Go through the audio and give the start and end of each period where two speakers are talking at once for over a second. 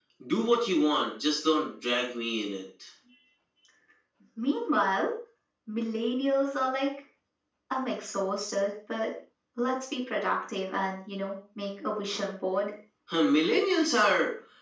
none

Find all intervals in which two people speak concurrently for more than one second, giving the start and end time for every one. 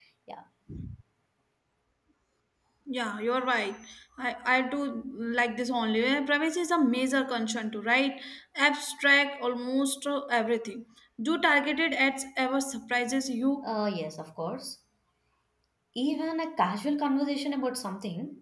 none

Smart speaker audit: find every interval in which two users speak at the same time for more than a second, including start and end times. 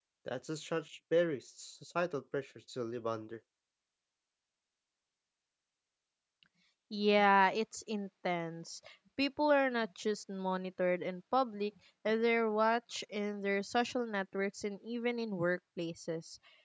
none

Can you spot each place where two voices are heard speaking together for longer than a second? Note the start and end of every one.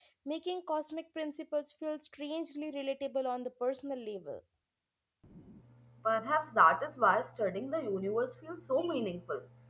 none

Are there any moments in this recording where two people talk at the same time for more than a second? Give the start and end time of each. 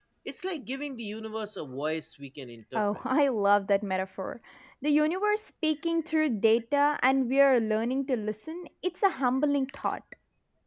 none

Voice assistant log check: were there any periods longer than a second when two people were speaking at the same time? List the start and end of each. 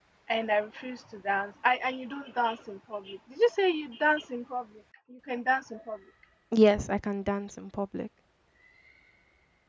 none

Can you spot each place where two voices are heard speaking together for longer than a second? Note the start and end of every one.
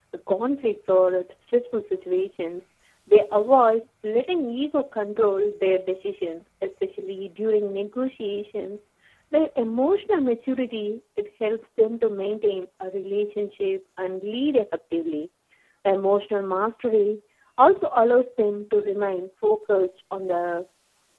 none

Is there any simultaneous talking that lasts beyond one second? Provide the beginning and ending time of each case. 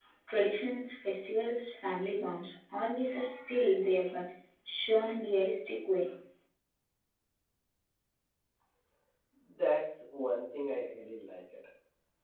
none

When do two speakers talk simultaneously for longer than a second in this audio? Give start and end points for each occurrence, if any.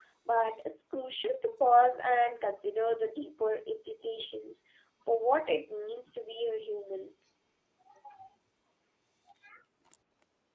none

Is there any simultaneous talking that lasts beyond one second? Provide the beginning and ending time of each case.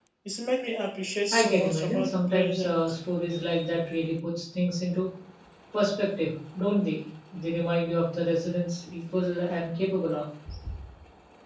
1.3-2.9

